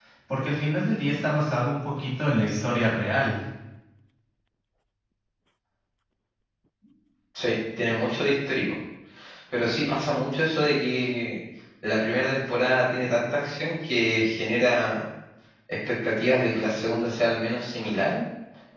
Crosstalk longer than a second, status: none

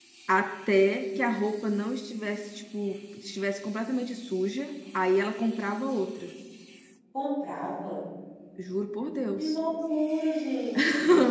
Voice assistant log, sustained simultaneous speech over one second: none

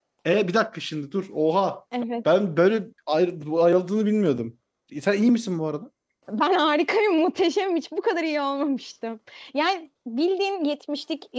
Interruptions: none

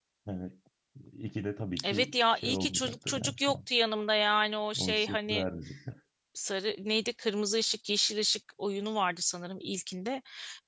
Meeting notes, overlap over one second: present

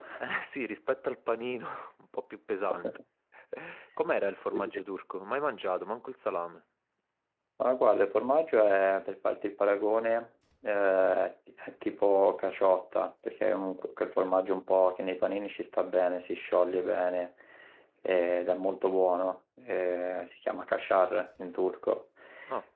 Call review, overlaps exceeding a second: none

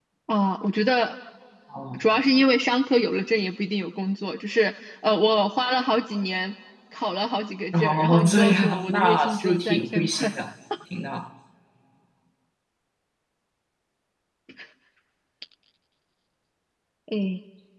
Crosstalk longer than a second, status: present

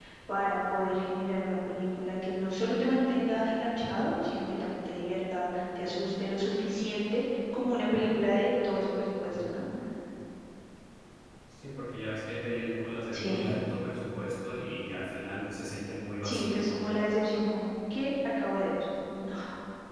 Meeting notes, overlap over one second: none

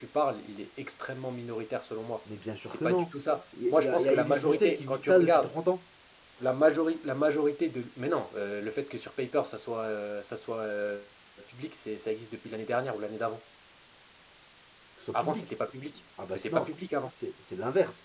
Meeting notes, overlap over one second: present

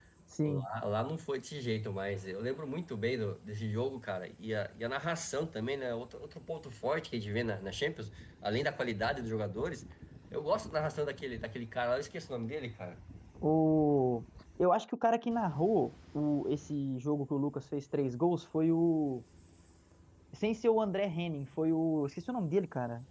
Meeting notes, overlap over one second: none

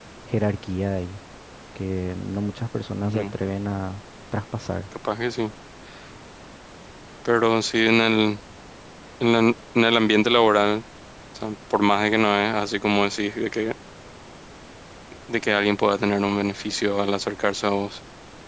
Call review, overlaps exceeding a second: none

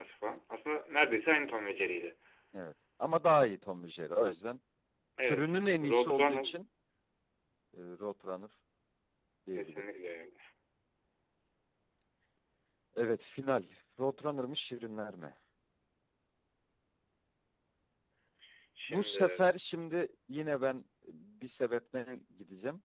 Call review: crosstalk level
present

